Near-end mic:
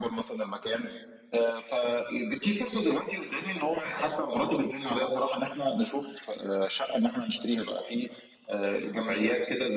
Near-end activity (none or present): none